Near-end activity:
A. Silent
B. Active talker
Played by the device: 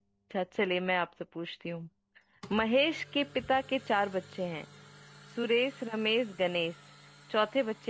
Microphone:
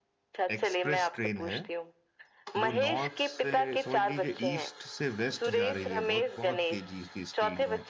B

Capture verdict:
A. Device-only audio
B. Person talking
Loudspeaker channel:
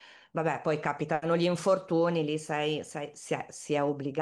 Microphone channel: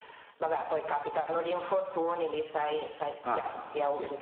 B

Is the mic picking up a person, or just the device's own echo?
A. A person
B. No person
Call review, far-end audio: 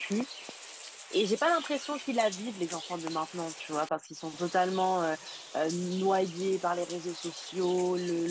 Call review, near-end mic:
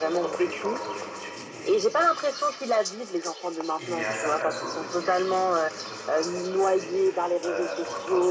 A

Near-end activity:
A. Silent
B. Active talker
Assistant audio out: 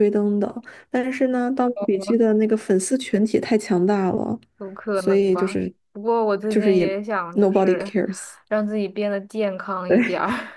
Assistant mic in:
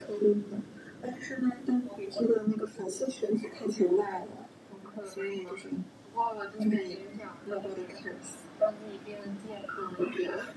A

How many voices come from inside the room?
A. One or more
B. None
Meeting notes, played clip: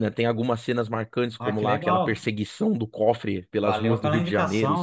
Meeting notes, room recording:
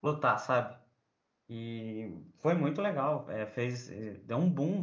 A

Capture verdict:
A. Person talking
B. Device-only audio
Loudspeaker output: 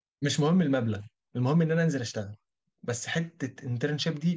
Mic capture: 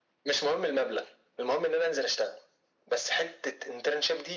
B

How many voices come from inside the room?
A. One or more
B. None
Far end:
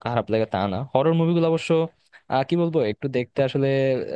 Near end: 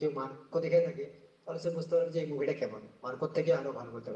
A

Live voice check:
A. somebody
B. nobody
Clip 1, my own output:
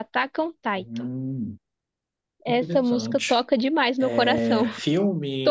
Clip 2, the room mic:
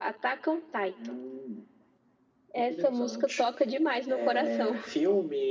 B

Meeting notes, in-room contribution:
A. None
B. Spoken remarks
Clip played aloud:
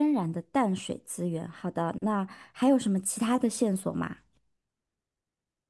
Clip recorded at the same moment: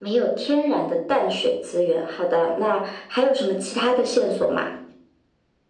A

